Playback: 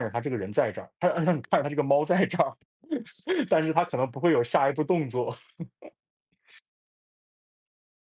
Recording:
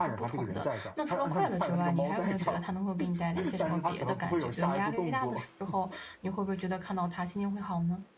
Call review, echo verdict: present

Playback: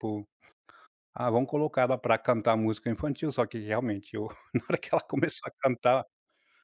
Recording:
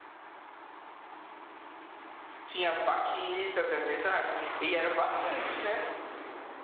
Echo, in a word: none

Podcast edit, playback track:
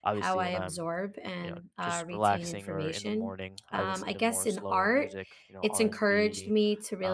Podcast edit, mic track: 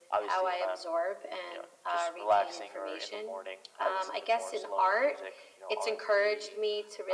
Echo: present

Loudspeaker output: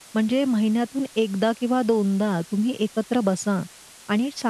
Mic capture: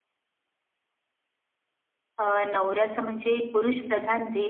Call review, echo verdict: none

